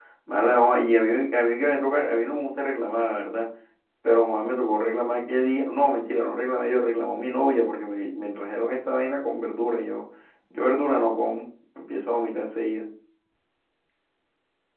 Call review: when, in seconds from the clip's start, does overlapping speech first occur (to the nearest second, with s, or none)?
none